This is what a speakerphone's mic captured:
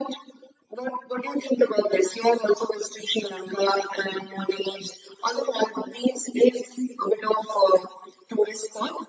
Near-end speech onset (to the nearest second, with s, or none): none